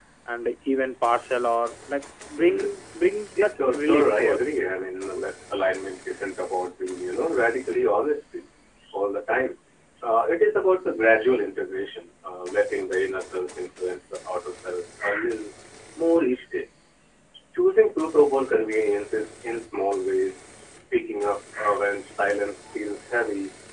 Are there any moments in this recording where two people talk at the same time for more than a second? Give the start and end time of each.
3.4-4.6

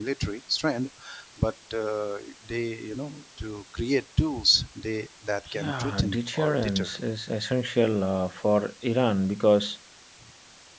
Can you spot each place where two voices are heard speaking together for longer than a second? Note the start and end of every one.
5.5-6.9

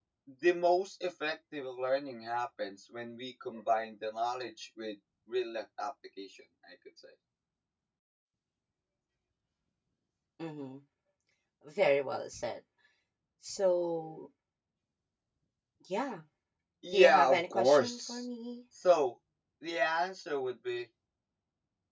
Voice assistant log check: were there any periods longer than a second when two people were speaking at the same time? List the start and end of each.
16.9-18.2

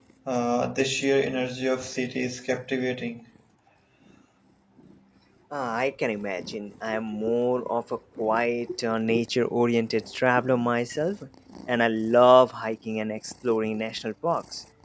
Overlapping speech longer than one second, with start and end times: none

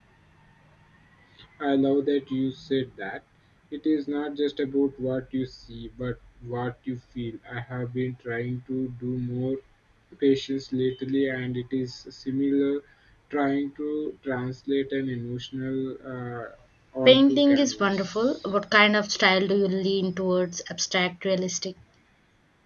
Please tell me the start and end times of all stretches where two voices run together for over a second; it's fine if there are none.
17.1-18.4

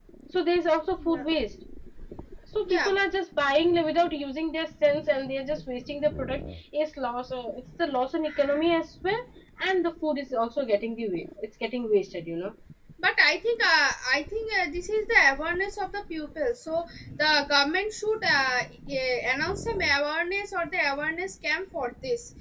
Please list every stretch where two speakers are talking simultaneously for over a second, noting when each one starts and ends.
none

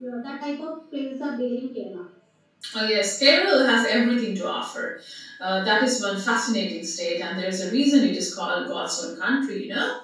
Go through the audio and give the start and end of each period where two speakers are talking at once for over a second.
none

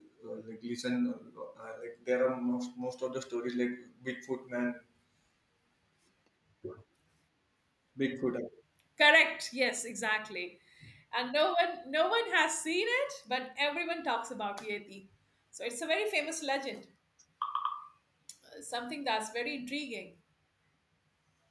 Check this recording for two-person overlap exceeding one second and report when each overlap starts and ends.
none

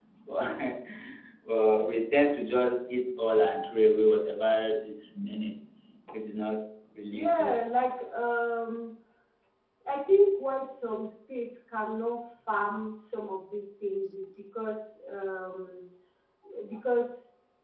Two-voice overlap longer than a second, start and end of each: none

